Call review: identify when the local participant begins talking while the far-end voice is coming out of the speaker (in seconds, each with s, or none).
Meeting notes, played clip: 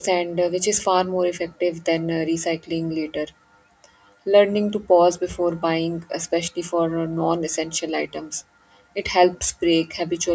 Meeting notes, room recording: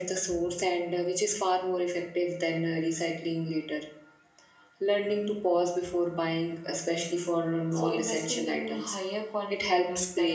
7.7 s